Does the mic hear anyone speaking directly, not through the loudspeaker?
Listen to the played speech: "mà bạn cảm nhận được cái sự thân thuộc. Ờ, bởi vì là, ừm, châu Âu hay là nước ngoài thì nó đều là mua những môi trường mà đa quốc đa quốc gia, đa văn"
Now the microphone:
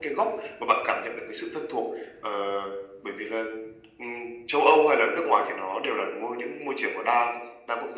No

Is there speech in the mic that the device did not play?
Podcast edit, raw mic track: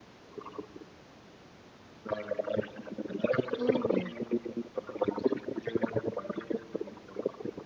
Yes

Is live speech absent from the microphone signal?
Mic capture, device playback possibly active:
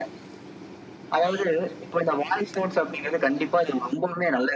Yes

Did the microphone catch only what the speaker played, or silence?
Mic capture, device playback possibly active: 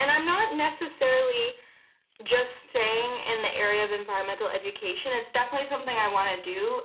Yes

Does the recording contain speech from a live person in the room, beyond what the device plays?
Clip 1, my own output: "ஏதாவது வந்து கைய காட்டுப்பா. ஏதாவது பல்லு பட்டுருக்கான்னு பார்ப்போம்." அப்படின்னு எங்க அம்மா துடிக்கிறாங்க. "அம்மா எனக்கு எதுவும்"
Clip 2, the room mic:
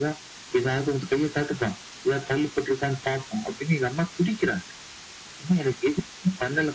No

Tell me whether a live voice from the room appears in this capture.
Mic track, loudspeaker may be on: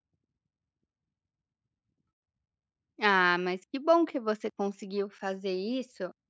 Yes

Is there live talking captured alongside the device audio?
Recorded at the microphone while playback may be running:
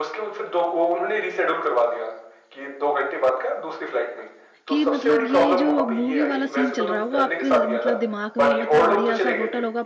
Yes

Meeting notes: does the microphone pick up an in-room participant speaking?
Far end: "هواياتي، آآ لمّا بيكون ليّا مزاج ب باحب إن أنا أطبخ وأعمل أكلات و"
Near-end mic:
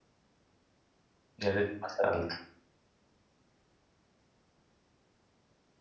Yes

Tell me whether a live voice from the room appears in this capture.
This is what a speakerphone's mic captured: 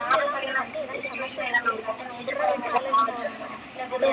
Yes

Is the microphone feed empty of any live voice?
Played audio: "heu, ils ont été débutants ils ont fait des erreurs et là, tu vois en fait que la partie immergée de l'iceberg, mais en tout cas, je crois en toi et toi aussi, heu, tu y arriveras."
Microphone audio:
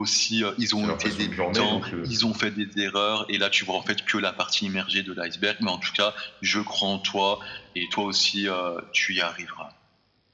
No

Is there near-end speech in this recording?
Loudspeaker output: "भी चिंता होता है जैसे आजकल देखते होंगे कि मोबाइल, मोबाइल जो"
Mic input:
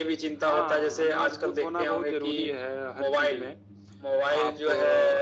Yes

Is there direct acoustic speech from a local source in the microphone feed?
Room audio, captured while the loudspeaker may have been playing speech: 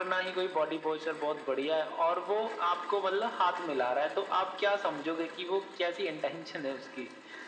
No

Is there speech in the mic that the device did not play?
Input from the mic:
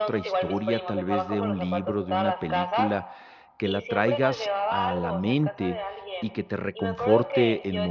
Yes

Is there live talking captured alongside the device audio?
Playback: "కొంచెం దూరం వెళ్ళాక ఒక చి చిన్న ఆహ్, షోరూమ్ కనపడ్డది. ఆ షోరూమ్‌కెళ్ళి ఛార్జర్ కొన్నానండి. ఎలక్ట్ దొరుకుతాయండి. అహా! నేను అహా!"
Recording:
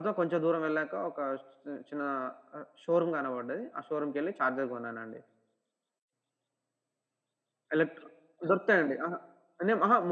No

